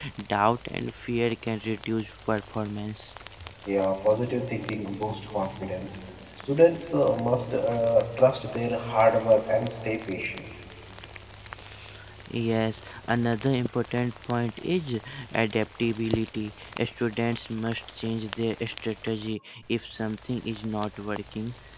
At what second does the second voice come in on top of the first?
none

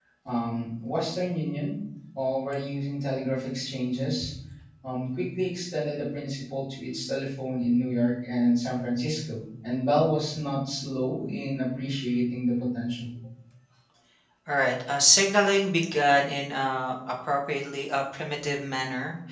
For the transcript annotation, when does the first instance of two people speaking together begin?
none

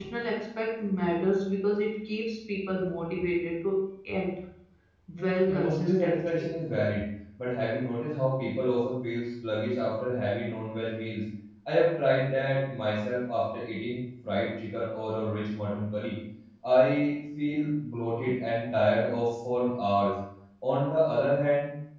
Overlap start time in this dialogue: 5.2 s

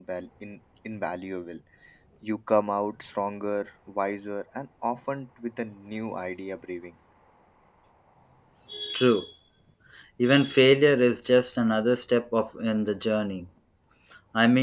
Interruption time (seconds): none

